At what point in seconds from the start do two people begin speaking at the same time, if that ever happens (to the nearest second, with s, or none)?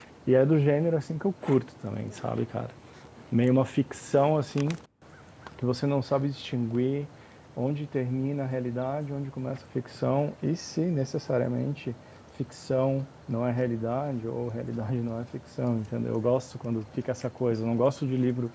none